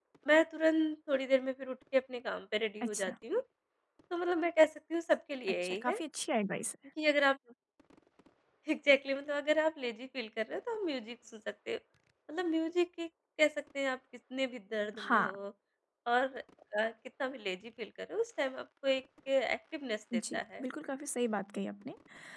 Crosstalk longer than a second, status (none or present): none